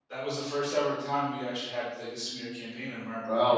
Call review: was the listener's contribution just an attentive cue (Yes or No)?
No